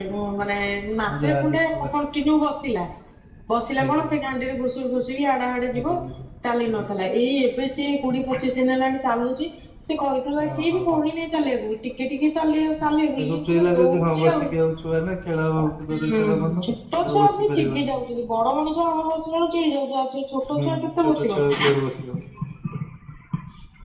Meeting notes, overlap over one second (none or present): present